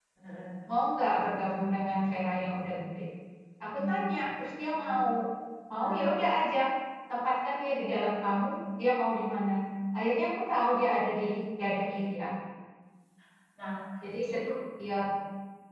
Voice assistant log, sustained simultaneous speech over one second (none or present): none